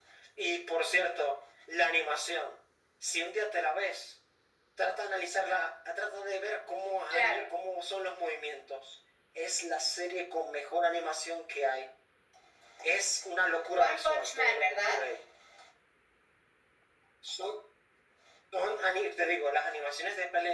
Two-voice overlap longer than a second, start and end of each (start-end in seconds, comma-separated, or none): 13.7-15.0